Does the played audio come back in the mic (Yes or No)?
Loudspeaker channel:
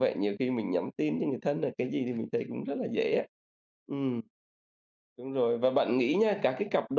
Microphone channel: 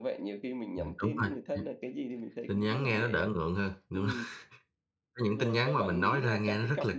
Yes